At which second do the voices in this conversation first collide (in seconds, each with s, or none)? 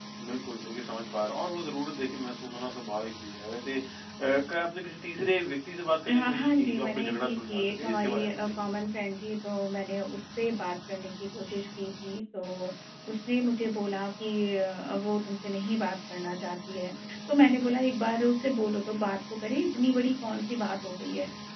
6.1 s